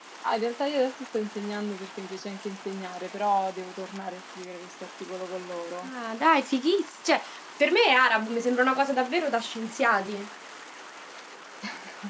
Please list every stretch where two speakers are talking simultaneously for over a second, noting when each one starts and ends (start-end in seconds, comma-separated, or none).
none